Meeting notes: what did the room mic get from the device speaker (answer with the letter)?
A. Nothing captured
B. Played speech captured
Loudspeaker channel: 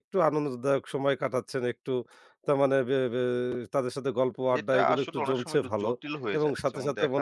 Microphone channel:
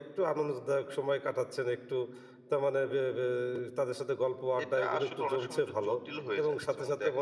B